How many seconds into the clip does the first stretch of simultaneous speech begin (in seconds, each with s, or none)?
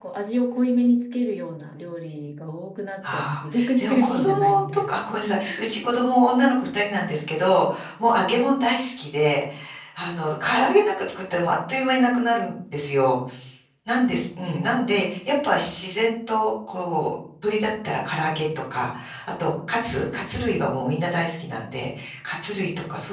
3.0 s